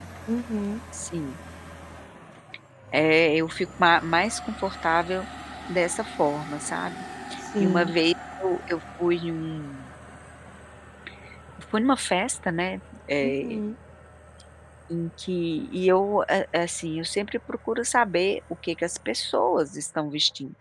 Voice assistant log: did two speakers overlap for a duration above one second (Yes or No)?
No